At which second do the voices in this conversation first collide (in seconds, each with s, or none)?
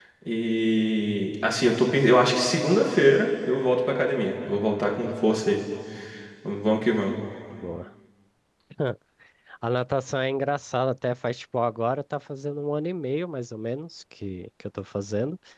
none